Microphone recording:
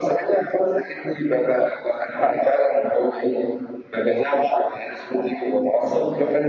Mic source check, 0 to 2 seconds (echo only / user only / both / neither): echo only